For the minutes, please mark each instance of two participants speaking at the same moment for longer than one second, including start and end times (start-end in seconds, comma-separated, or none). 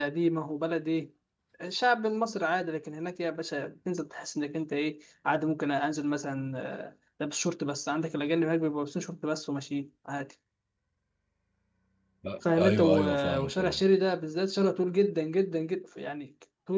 12.6-13.8